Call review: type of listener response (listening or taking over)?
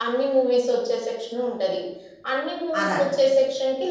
listening